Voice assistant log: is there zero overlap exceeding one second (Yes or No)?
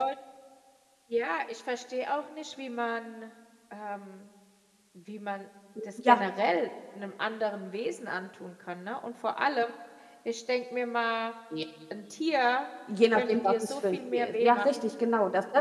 No